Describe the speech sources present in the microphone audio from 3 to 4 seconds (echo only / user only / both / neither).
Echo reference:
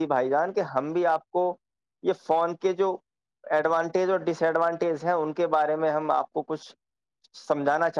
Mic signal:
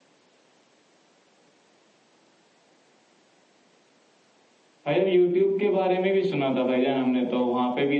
neither